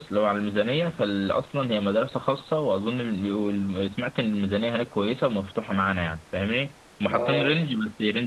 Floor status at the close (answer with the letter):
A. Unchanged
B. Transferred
A